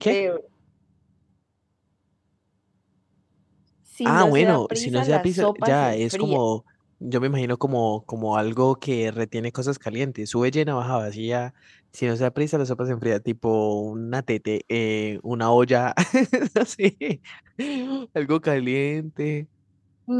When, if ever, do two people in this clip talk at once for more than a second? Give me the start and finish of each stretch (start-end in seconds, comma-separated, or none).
4.1-6.4